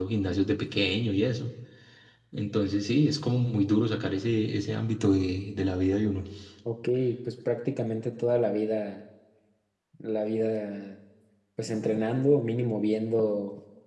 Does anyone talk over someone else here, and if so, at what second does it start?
none

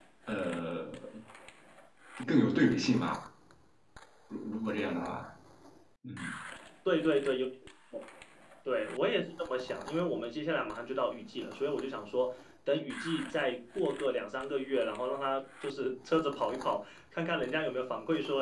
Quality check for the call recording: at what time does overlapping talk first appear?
none

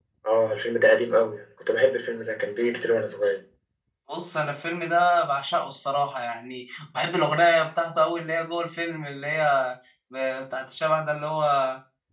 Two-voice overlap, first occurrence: none

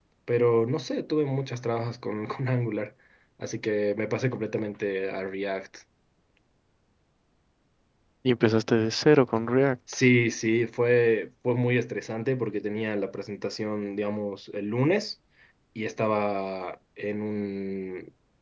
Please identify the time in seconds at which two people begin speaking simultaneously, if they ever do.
none

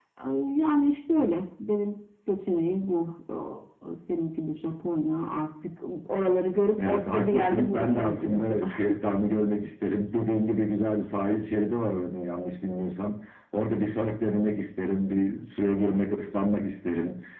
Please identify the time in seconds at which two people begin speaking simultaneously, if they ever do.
6.8 s

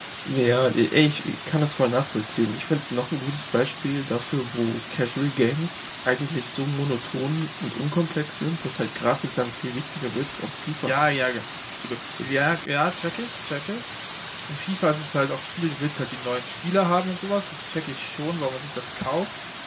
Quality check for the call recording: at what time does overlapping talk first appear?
none

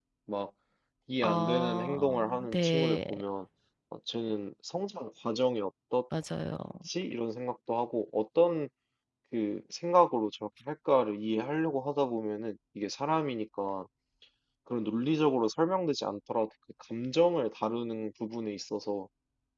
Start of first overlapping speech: 1.2 s

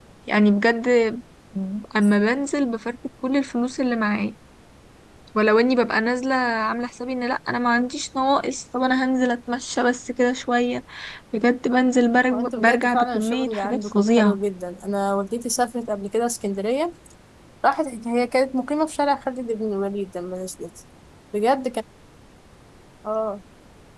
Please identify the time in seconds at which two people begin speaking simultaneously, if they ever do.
12.3 s

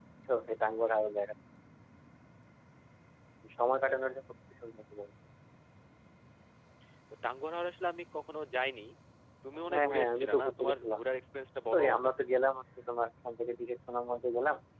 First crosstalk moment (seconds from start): 9.7 s

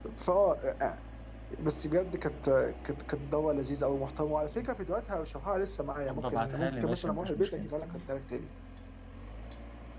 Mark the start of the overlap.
6.1 s

